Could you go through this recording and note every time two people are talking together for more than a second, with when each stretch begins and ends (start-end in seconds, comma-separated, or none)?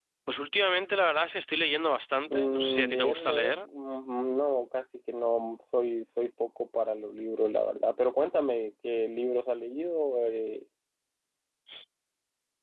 2.3-3.6